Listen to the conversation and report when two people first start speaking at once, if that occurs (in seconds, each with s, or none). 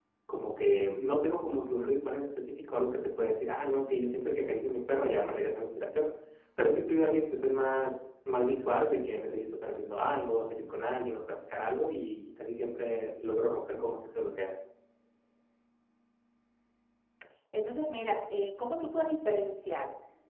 none